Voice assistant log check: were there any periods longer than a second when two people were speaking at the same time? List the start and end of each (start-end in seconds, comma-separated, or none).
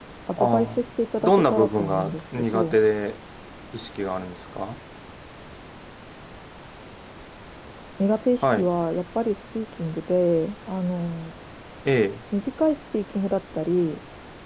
1.2-2.7